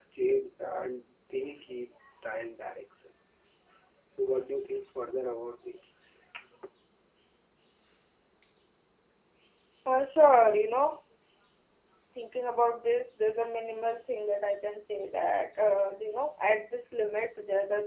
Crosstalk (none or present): none